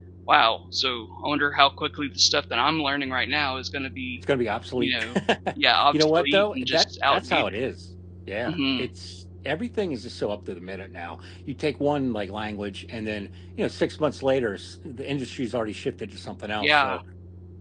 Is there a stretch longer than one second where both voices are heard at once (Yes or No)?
Yes